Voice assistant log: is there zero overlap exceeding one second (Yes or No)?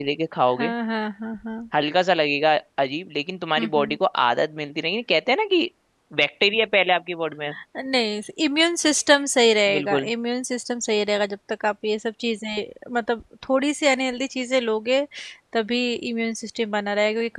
Yes